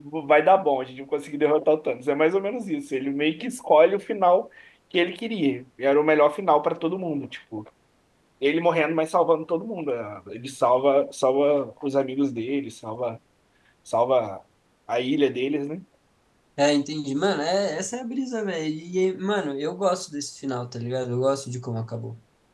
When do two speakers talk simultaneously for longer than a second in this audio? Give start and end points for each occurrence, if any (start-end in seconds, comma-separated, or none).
none